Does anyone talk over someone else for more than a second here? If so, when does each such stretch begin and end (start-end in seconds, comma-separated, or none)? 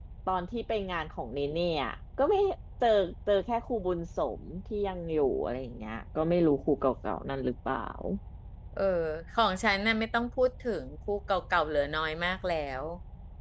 none